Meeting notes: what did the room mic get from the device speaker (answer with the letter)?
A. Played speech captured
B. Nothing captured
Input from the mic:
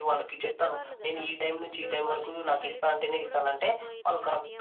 A